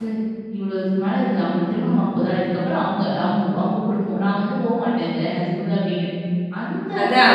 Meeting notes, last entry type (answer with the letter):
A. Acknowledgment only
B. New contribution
B